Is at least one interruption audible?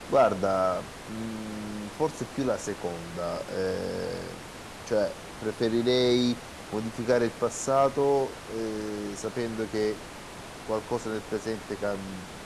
No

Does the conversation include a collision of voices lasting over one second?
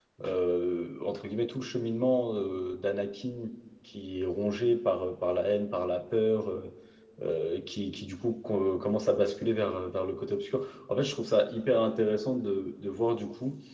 No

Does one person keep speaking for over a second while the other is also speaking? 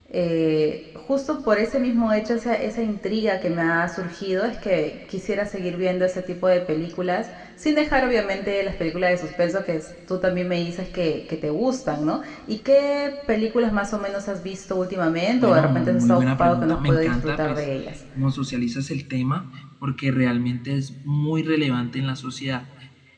Yes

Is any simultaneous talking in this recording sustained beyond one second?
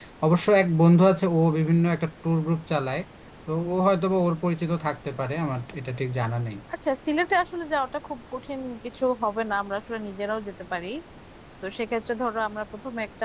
No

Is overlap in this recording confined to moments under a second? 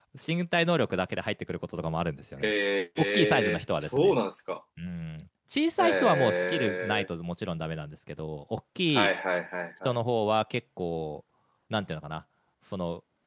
No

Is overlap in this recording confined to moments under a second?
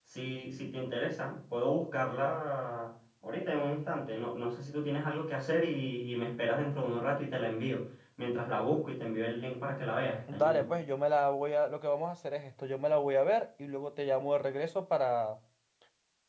Yes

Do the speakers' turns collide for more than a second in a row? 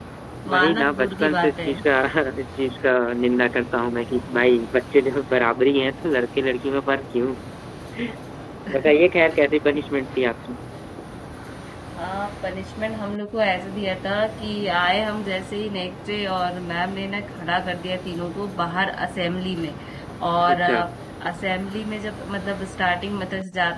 Yes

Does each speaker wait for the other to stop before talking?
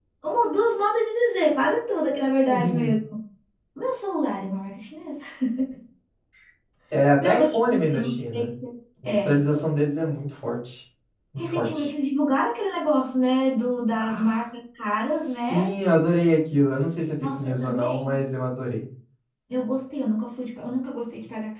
No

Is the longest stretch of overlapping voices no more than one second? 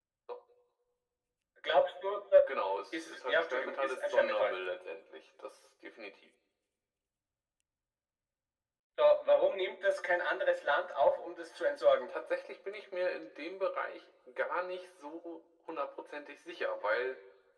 No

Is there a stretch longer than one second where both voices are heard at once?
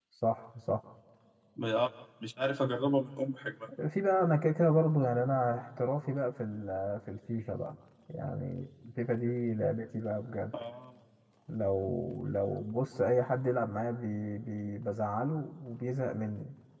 No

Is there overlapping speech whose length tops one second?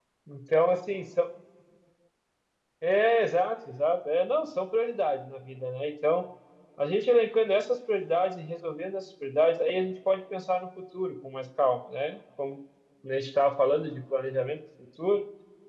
No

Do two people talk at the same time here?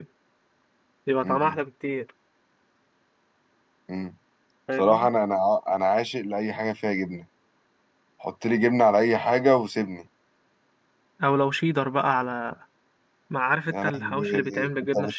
Yes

